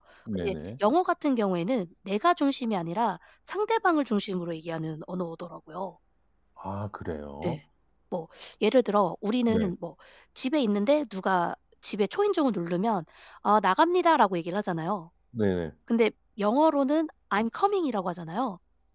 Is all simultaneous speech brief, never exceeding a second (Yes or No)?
Yes